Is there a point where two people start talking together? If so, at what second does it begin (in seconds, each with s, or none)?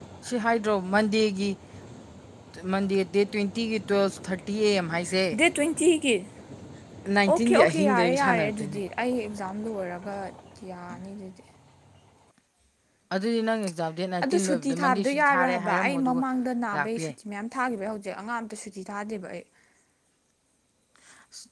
7.3 s